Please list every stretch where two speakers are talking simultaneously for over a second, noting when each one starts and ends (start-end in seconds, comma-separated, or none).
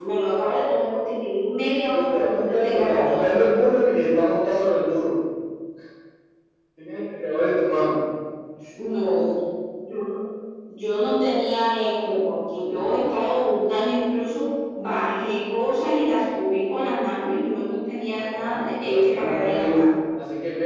1.9-3.3, 18.1-19.9